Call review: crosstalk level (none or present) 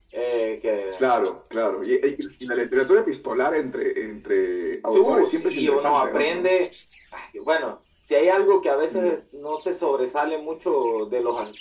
present